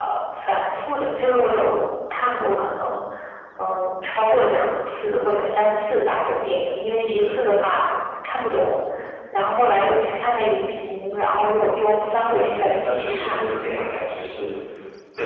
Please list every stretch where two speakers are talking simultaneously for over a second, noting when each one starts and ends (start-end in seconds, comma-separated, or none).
11.8-13.8